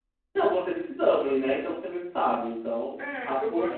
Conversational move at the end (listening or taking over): taking over